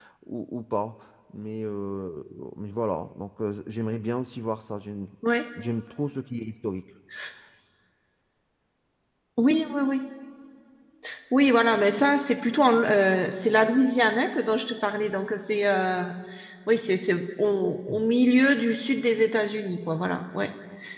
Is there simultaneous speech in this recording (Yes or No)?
No